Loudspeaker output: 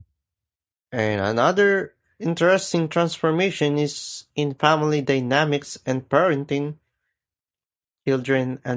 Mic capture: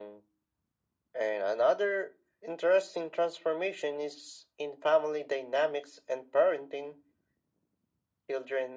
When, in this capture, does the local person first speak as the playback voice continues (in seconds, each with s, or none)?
none